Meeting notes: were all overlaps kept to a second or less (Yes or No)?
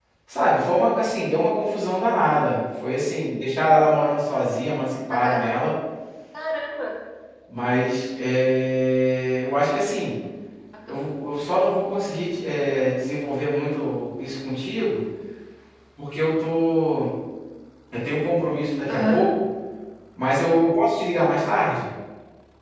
Yes